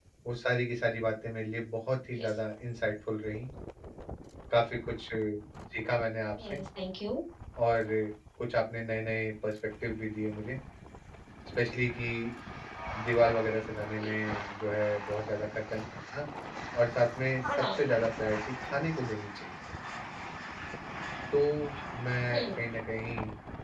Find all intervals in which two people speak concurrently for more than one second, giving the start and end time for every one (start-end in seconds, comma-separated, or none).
none